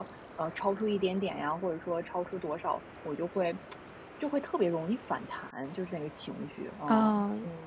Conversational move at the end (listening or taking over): taking over